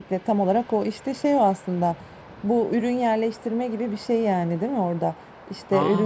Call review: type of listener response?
listening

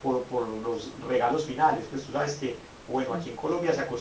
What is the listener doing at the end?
listening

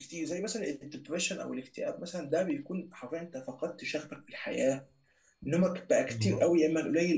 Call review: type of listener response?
listening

